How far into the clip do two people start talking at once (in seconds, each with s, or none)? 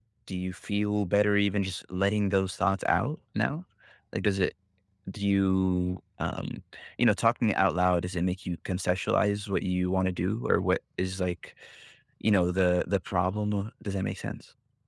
none